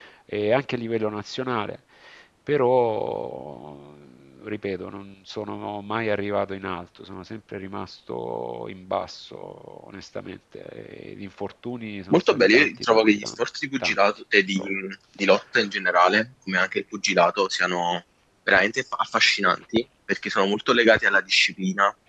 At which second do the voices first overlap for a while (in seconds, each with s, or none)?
12.1 s